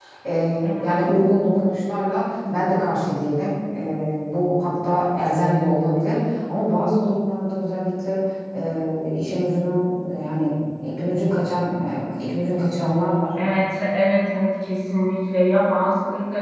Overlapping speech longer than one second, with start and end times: none

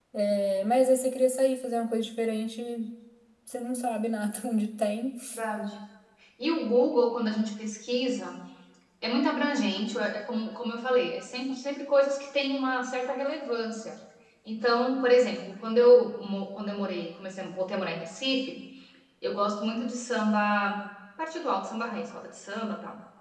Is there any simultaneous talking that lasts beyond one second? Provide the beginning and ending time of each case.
none

